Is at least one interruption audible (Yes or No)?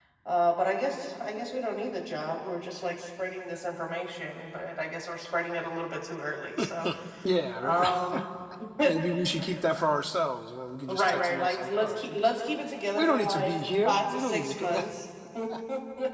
Yes